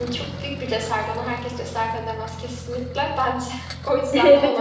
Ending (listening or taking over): taking over